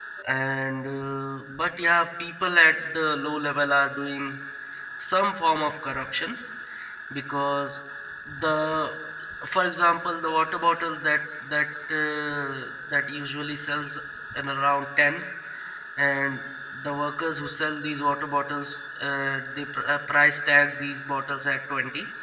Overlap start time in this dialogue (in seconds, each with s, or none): none